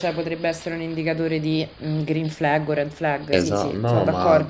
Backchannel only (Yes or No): No